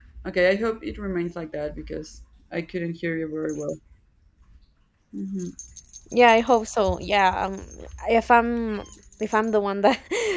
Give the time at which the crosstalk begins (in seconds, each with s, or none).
none